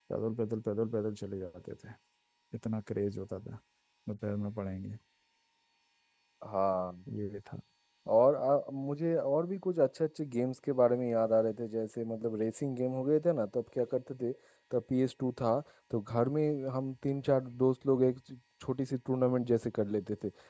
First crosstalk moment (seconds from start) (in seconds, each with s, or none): none